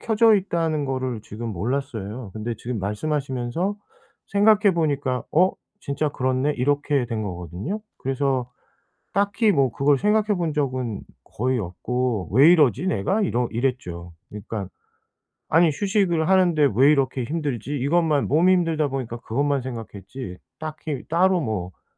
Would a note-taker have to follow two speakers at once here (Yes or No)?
No